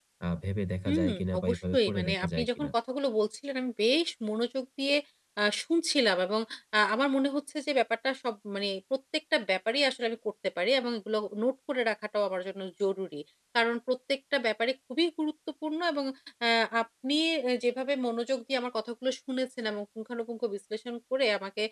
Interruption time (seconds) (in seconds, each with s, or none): 0.9 s